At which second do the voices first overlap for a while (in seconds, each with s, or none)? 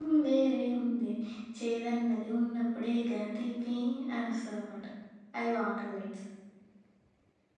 none